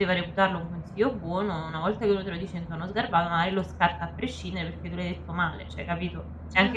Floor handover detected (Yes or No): Yes